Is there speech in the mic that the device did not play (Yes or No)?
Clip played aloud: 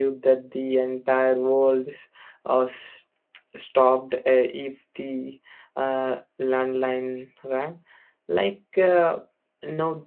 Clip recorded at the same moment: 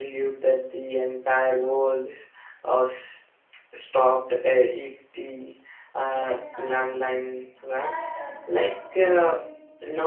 Yes